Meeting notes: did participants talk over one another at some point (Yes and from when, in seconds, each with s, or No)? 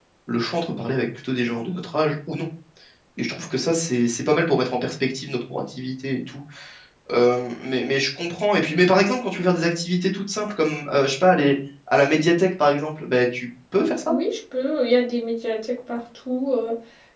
No